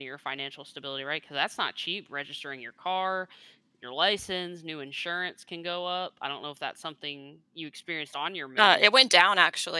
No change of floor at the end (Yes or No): No